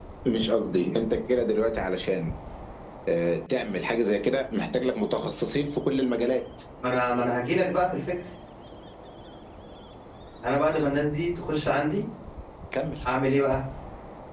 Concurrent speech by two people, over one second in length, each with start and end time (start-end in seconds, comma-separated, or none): none